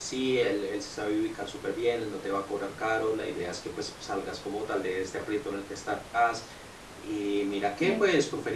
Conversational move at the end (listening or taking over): listening